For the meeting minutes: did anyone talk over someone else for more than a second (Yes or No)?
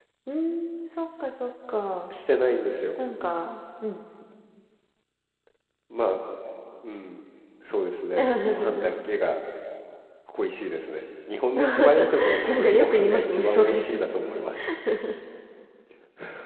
Yes